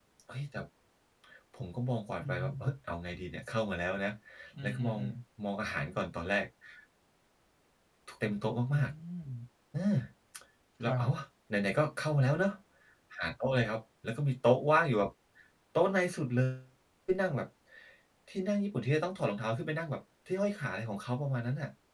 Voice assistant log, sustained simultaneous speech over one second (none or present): none